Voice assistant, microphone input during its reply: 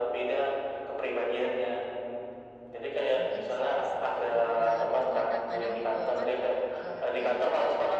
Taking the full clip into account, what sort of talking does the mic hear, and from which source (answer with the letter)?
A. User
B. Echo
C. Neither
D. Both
D